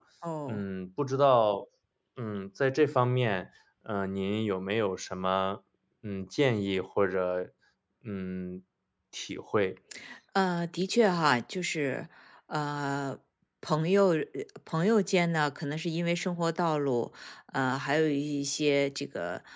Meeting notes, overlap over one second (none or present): none